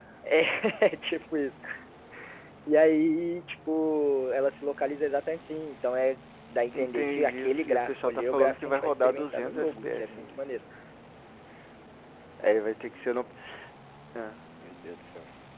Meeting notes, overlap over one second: present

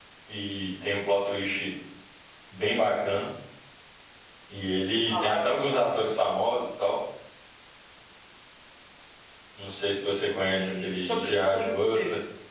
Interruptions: present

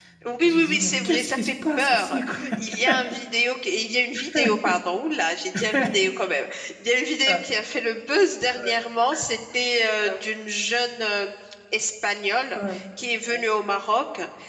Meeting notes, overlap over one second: present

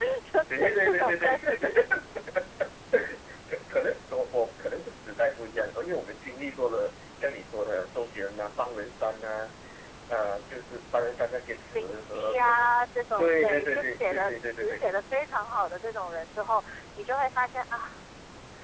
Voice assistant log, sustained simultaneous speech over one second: present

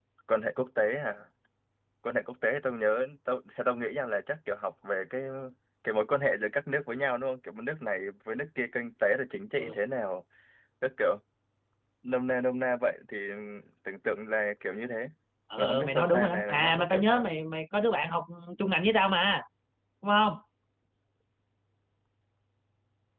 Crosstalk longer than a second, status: present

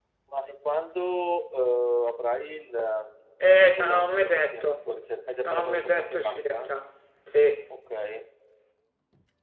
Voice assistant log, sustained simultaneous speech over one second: present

